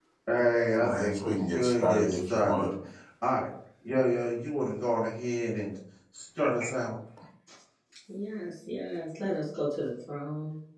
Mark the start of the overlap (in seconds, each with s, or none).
0.8 s